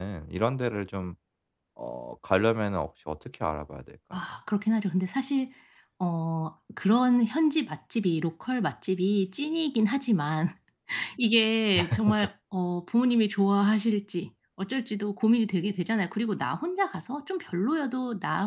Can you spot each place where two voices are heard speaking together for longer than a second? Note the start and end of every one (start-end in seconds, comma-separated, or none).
none